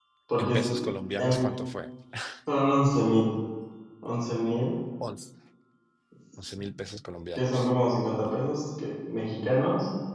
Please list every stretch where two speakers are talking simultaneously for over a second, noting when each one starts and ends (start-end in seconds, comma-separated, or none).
none